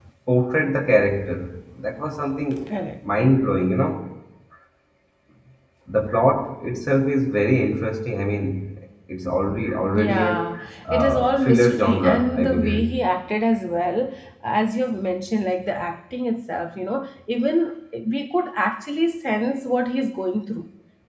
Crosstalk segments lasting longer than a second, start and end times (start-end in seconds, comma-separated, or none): 10.9-12.8